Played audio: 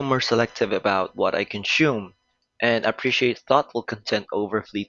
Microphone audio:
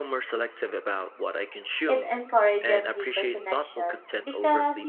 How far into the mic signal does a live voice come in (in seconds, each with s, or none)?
1.9 s